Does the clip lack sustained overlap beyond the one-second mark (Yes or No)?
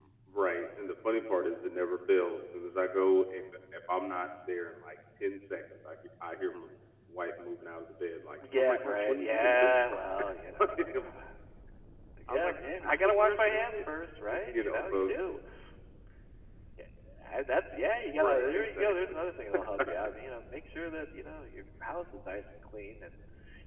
No